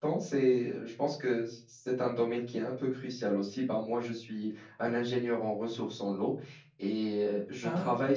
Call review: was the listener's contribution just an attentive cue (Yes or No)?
Yes